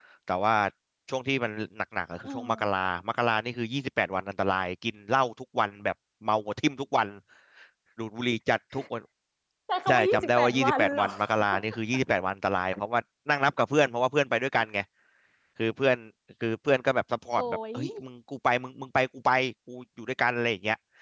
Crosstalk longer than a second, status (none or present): present